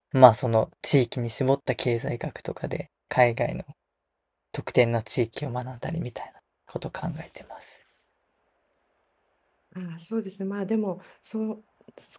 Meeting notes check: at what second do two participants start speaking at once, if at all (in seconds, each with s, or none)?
none